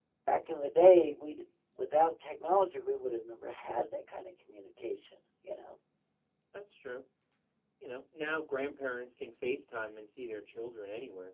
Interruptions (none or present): none